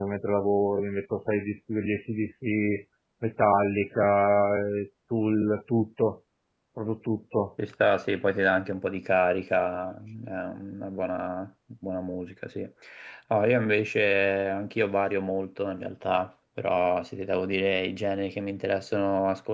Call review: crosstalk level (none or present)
none